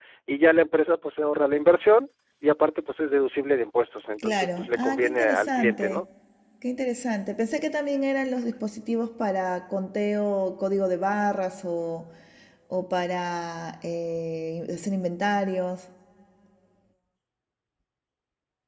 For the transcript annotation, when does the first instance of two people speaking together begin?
4.2 s

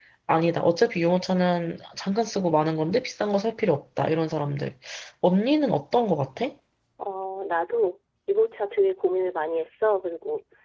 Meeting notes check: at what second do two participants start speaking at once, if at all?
none

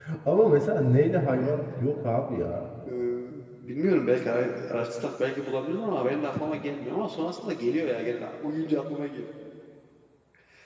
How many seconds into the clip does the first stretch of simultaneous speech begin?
none

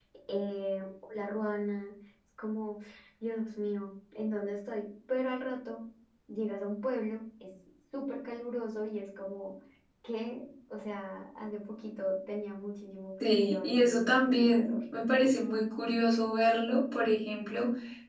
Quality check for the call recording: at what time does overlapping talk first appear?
13.2 s

